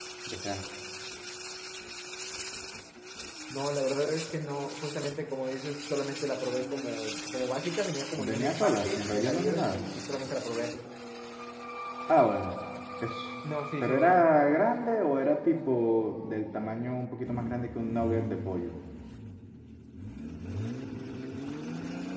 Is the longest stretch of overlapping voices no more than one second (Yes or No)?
No